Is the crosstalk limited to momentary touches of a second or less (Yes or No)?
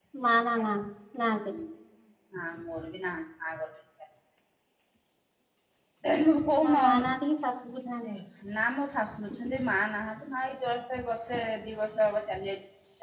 Yes